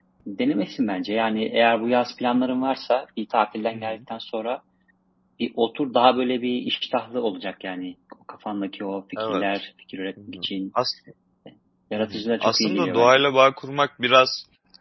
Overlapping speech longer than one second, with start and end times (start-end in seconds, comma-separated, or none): 12.0-13.2